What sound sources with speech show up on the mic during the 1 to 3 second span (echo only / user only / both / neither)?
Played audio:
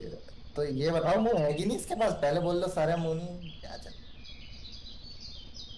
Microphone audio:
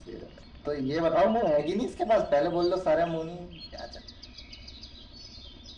echo only